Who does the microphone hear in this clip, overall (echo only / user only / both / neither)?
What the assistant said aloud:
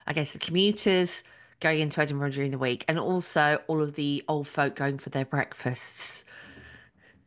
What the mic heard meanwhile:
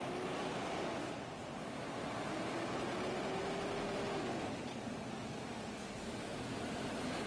neither